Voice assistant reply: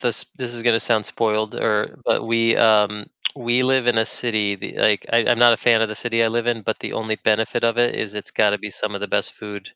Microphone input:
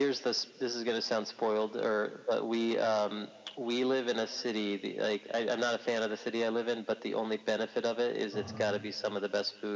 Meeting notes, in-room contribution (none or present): present